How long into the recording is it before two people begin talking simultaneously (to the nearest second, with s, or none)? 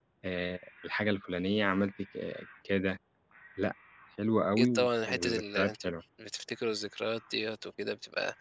5 s